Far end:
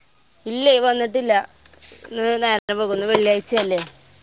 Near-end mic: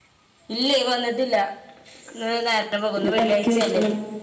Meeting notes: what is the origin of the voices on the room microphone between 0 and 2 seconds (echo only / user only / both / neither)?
echo only